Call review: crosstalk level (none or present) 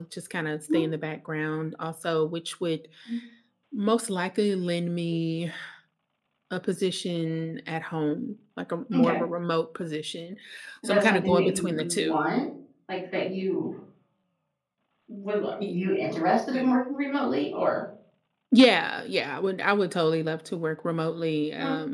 present